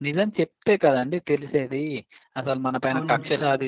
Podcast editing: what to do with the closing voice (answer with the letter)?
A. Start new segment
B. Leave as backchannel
B